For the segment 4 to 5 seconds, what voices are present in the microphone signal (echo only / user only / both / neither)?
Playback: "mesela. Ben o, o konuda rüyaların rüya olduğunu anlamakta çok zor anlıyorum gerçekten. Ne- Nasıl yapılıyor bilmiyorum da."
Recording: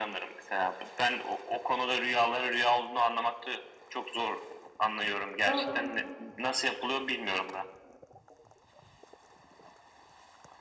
echo only